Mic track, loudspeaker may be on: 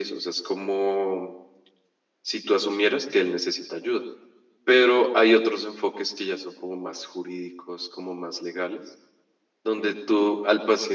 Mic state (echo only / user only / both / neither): both